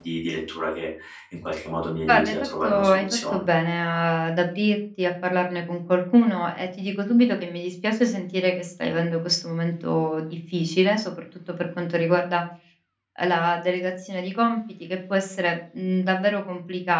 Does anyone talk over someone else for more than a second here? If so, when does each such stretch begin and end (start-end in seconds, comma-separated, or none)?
2.1-3.4